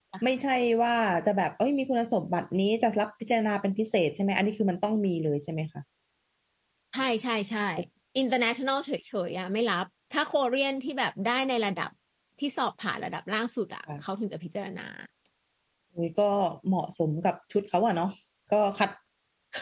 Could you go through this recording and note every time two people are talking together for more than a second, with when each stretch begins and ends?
none

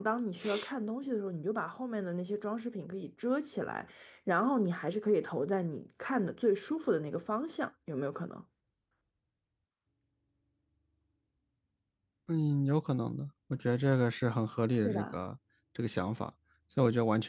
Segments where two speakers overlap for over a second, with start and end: none

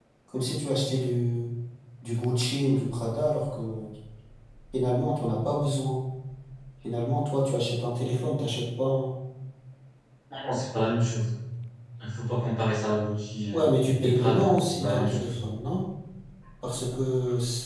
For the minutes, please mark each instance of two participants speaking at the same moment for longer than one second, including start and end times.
14.0-15.3

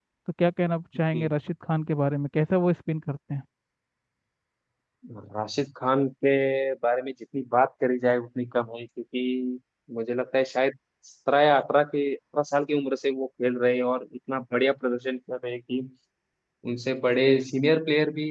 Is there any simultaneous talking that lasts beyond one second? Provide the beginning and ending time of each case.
none

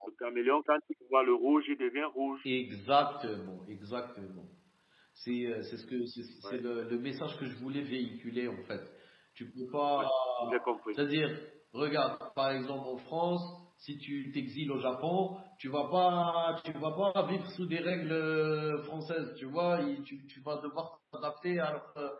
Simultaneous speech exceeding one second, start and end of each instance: none

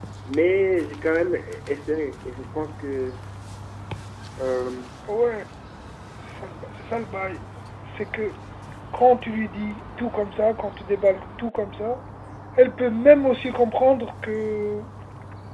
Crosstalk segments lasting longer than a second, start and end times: none

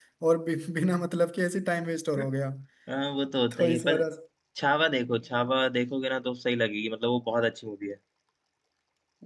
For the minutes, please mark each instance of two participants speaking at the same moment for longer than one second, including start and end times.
none

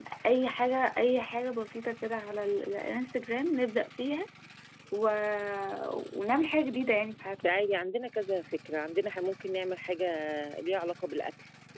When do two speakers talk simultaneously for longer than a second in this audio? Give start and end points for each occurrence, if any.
none

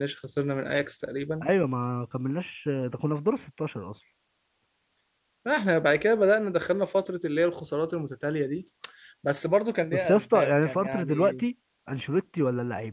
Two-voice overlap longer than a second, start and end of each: 9.9-11.4

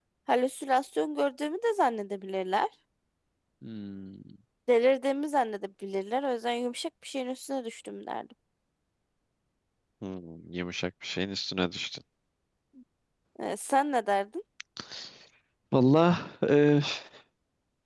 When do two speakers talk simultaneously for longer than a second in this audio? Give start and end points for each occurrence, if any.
none

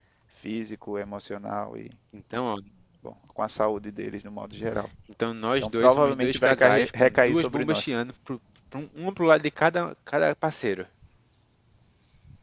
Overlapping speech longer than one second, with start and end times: 5.6-7.9

